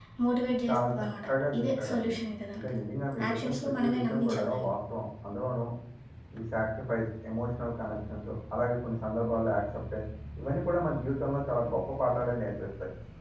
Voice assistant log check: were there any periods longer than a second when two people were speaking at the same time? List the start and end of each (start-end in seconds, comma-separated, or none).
0.7-2.1, 3.3-4.7